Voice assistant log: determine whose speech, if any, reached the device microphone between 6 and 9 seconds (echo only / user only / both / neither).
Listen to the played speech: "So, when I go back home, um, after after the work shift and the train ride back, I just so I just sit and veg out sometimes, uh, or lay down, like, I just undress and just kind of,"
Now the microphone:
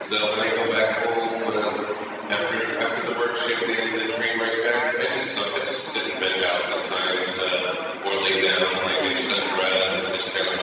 both